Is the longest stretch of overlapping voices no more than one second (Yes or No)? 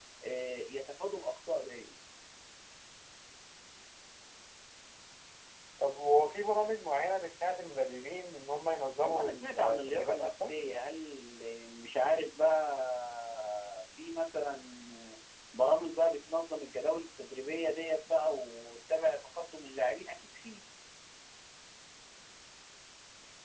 No